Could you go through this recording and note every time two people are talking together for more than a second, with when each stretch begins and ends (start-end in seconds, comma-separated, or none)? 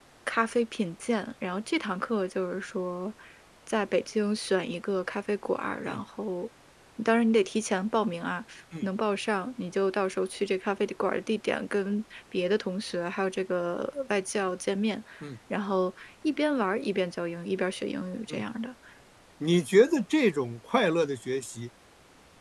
none